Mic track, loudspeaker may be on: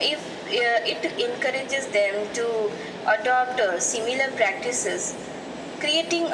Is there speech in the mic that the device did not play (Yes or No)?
No